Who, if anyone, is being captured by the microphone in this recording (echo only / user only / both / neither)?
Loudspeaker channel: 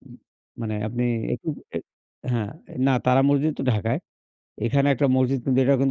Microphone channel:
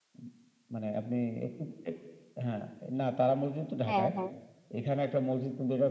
both